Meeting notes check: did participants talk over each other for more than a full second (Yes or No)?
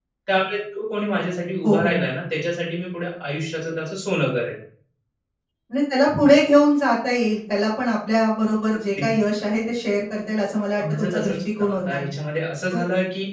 Yes